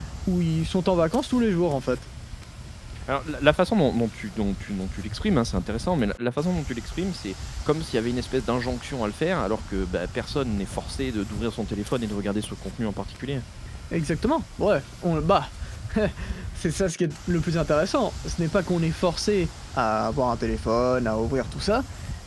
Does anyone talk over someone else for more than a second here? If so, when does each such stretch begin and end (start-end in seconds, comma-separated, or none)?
none